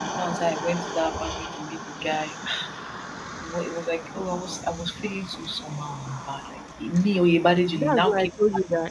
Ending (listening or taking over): taking over